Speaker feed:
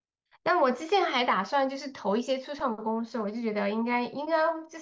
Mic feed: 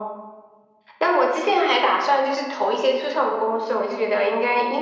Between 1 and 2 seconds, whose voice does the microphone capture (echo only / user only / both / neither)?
echo only